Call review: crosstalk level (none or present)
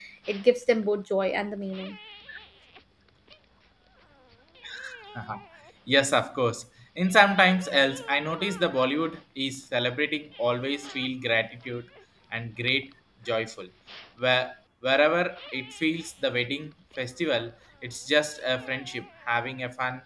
none